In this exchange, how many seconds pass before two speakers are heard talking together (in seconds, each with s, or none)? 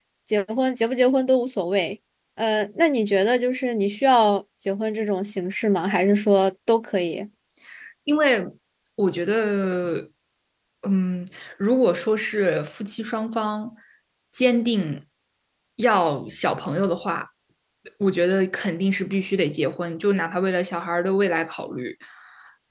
none